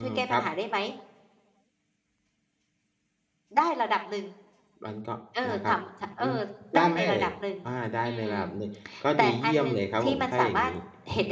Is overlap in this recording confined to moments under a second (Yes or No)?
No